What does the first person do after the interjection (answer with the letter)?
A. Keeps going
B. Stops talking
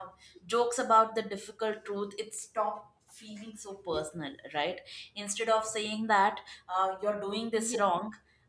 A